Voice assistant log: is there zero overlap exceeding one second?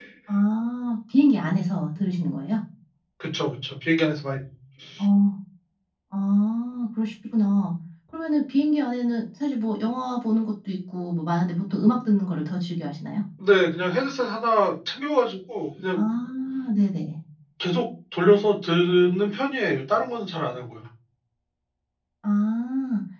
Yes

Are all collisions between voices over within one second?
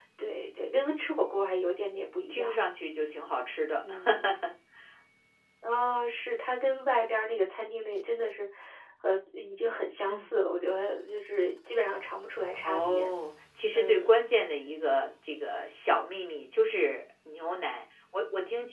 Yes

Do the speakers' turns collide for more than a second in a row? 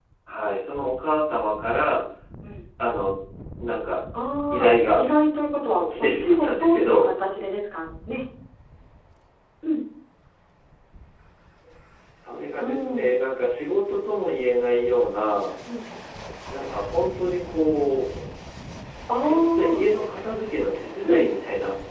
Yes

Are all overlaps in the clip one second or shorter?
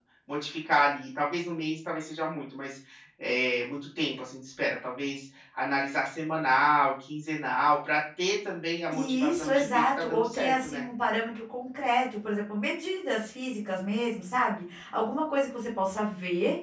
No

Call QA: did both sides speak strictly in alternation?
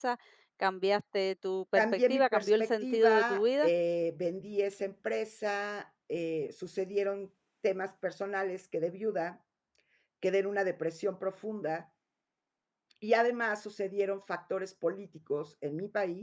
No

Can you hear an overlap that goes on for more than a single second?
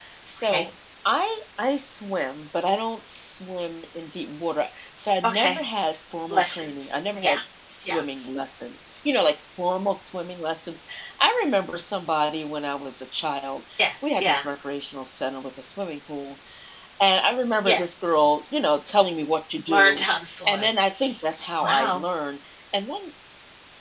No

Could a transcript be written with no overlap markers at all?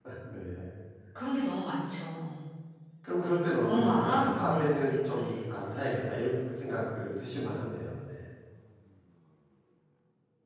No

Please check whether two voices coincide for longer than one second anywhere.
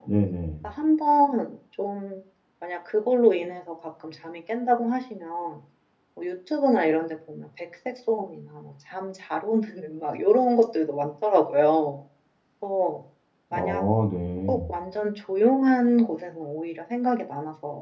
No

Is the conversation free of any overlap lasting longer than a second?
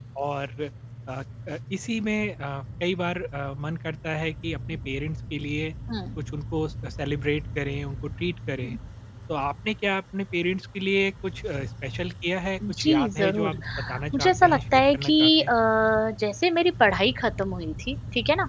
No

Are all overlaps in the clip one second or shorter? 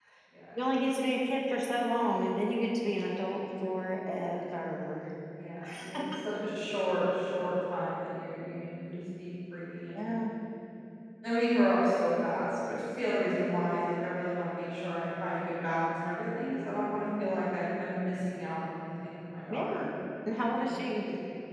Yes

